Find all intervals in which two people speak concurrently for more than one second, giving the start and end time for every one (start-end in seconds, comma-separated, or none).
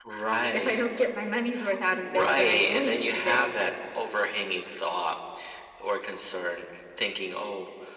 2.0-3.4